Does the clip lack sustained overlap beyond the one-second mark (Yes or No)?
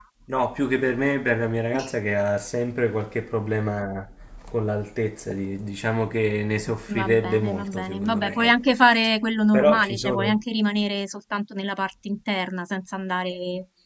No